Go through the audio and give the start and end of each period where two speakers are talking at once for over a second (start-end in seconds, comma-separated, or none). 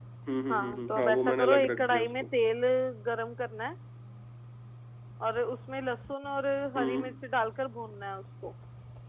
0.5-2.3